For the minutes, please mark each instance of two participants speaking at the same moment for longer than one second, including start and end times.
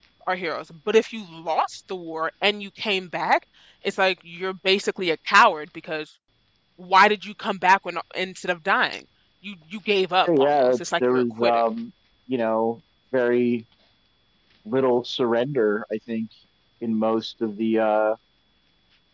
10.3-11.6

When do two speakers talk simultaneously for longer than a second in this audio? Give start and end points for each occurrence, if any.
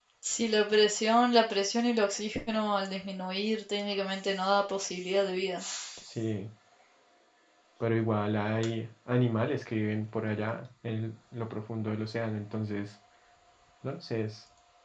none

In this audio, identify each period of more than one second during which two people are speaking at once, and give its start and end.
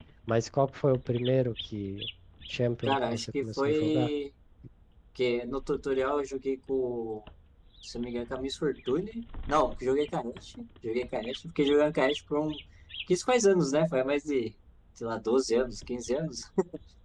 2.9-4.1

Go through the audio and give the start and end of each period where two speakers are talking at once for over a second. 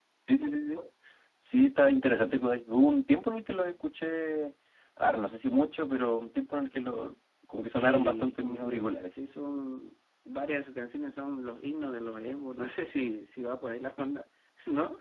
7.7-8.9

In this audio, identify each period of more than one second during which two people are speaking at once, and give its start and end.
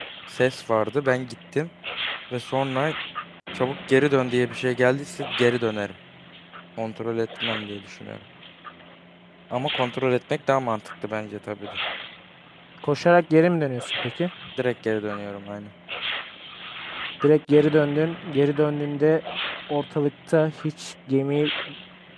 none

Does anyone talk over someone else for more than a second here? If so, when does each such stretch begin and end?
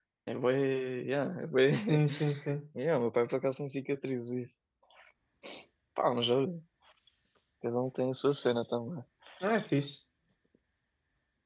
none

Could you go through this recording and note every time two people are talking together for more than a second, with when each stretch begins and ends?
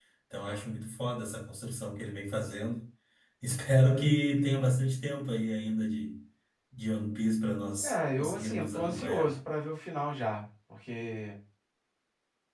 7.8-9.3

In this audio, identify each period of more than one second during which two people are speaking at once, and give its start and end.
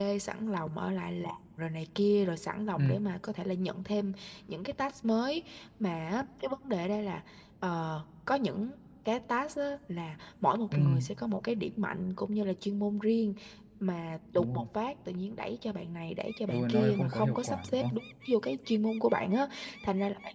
16.5-17.9

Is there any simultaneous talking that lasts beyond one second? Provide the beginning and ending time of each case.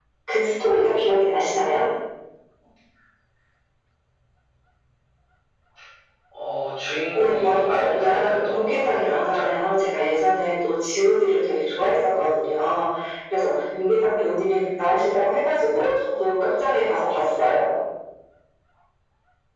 7.1-9.5

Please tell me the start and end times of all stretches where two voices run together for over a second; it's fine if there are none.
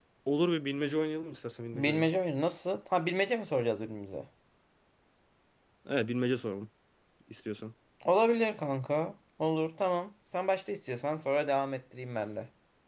none

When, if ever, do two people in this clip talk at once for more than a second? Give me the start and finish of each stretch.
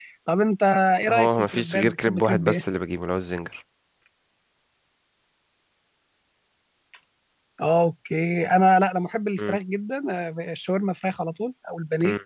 1.1-2.6

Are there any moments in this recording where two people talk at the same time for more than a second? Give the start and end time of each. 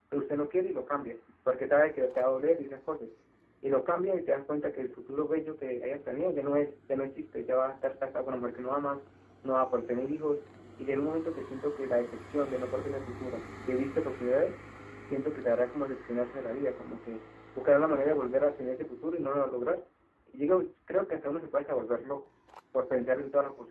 none

